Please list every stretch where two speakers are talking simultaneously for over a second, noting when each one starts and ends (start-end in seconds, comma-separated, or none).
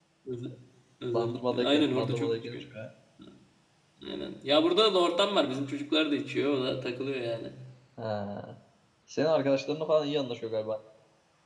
1.1-2.6